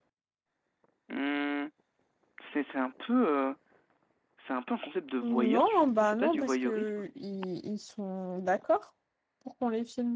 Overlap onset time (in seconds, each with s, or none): 5.2 s